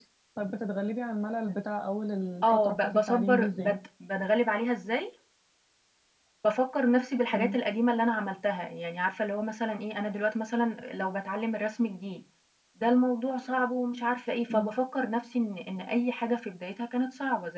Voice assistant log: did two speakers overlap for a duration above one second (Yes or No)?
Yes